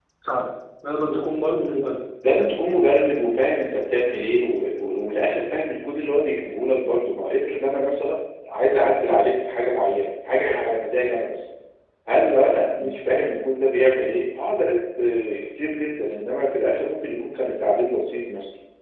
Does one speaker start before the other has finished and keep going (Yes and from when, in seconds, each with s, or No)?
No